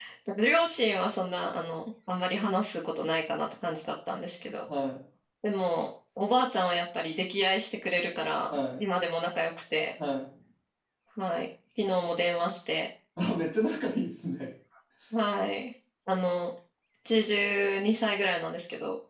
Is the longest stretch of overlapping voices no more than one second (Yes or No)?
Yes